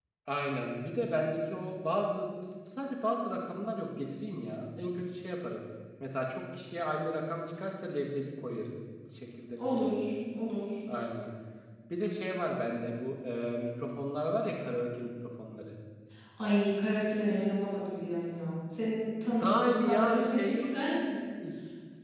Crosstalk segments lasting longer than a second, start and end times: 19.4-20.7

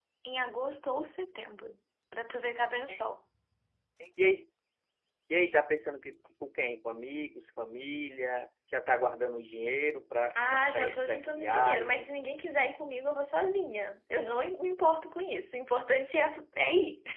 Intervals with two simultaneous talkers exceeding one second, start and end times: 10.5-12.1

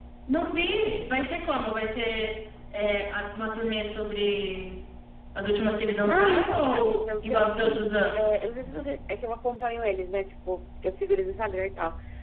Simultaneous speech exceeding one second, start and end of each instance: 6.0-8.3

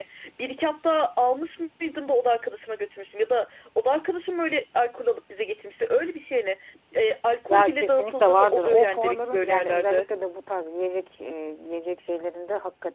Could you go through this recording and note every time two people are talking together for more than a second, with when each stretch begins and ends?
7.5-10.1

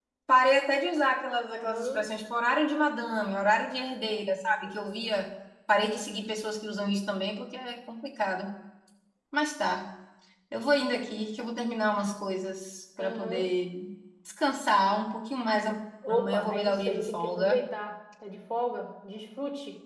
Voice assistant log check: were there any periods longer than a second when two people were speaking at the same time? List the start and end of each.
16.1-17.6

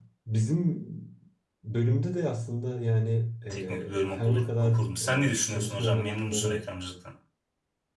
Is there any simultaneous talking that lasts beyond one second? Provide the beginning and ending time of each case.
3.5-6.6

